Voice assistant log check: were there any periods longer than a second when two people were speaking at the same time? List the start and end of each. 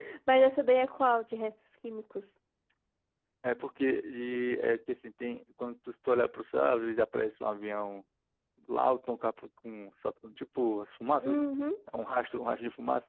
none

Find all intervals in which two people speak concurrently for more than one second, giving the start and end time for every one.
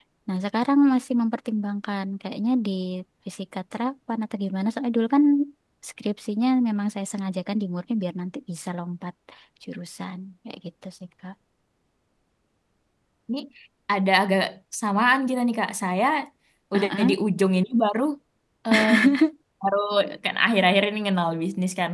none

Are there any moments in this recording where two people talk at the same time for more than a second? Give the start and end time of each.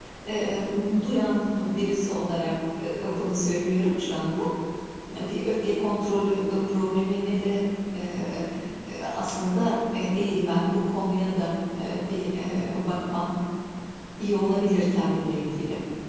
none

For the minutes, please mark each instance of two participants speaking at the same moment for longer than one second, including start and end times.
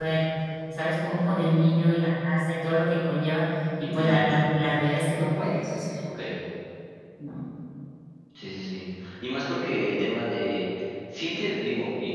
none

